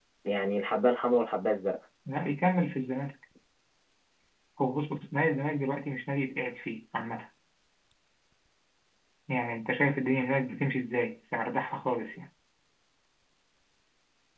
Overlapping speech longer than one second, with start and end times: none

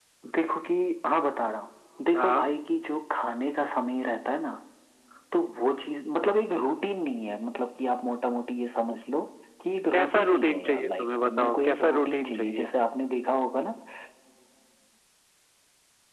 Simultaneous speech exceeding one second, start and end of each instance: 9.9-12.7

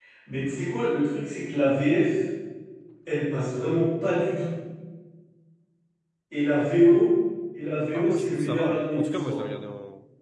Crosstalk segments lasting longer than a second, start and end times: 7.9-9.4

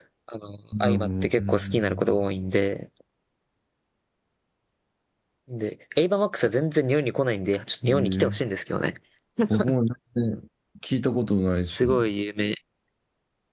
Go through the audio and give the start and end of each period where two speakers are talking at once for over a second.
0.8-2.3

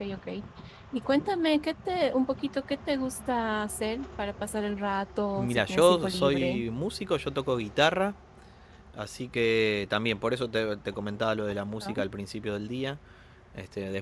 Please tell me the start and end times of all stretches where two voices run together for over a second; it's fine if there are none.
5.3-6.6

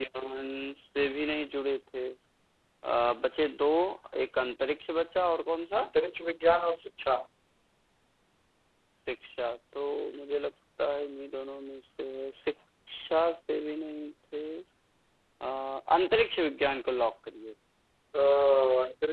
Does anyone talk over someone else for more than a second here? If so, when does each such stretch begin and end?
none

